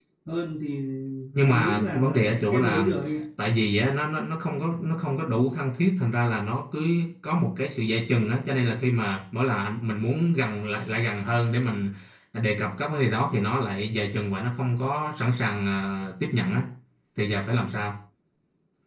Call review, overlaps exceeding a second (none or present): present